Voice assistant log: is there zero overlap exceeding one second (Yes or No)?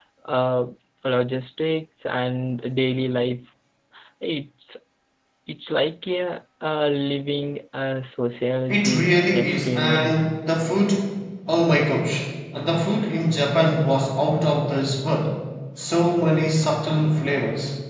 No